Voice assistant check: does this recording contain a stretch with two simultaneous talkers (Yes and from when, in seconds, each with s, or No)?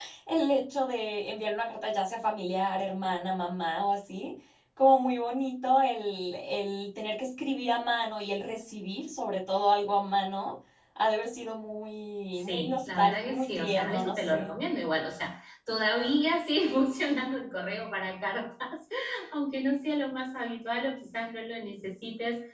Yes, from 12.3 s